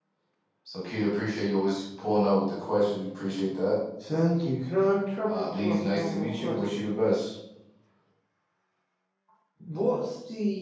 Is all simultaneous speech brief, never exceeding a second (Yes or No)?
No